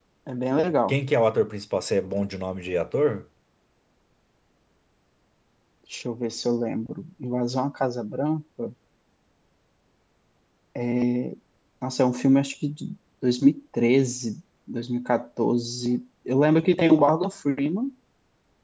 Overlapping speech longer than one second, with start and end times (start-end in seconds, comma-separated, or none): none